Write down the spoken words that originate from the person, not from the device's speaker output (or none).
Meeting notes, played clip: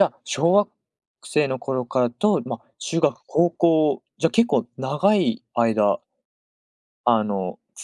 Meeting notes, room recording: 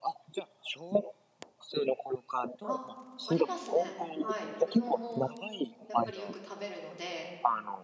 あ。ありますね。はい。うどんもやっぱりよく食べるので。